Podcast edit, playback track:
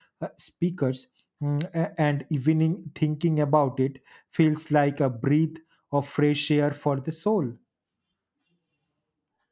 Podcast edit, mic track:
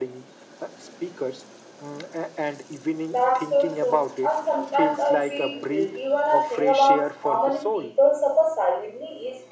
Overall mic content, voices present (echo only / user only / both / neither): both